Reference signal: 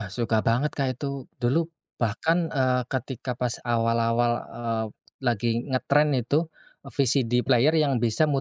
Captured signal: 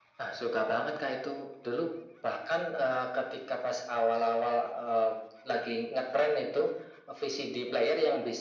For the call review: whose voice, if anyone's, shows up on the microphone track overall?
echo only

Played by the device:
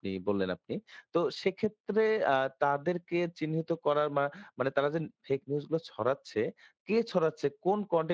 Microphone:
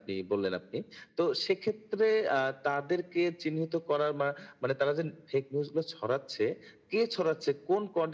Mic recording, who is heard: echo only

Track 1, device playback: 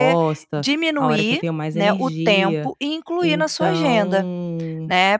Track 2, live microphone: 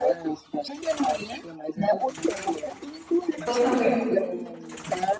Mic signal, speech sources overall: both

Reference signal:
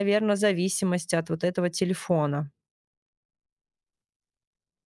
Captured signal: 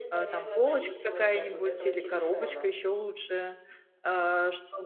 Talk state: both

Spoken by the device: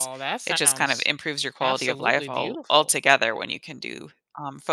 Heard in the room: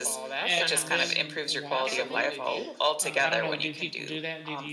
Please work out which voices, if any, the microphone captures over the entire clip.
both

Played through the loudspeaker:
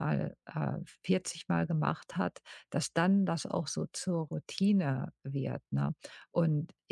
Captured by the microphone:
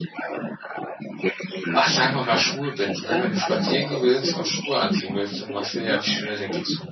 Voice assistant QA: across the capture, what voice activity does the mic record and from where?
both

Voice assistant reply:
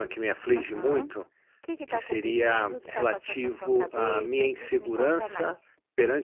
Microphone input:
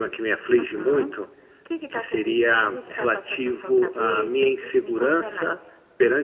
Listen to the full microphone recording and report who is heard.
echo only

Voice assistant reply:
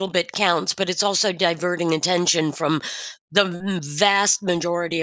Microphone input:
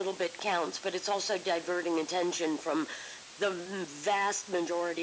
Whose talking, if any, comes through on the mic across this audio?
echo only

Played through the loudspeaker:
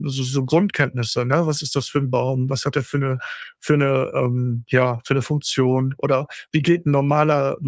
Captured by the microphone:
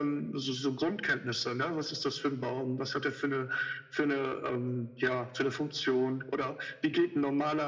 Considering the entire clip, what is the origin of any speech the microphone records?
echo only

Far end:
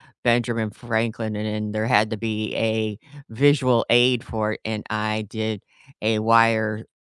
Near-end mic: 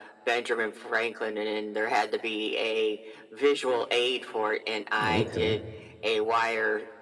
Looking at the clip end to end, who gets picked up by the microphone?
both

